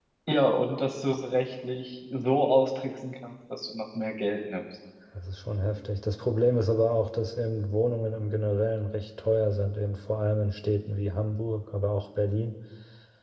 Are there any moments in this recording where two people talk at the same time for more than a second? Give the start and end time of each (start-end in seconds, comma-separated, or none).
none